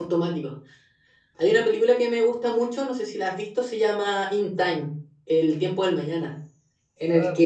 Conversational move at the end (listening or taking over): listening